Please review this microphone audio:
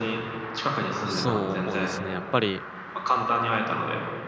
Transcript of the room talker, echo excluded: そうですね、やっぱり

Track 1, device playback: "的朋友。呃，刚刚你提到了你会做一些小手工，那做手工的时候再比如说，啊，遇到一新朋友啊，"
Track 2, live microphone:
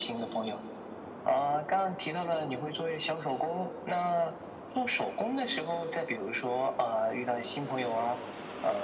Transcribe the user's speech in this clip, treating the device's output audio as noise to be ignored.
none

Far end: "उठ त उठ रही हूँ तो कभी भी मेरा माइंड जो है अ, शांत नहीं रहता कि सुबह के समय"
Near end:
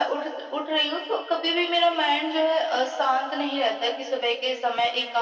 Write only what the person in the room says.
none

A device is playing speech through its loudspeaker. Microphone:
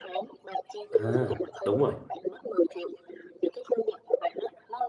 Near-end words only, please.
À, đúng rồi.

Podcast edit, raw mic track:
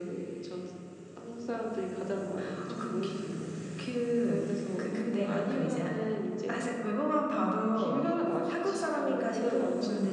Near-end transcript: none

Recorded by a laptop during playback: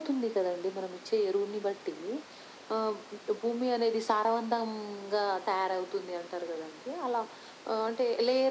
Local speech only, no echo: none

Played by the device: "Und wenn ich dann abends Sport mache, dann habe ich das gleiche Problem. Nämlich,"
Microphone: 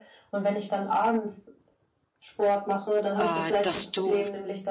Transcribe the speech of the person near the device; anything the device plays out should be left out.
Äh, dass du

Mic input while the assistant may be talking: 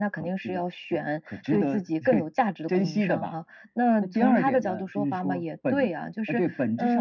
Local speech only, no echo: none

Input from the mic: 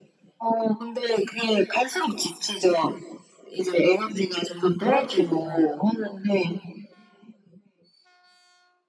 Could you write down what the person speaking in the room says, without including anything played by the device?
그렇죠.

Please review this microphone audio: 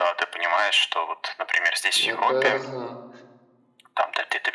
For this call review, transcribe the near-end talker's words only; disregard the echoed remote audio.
Это ага.

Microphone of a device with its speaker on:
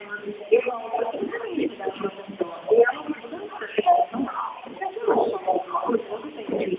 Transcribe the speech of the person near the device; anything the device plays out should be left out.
none

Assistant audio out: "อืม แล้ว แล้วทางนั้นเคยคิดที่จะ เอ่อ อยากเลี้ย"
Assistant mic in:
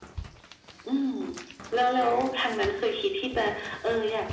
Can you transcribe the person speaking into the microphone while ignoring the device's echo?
none

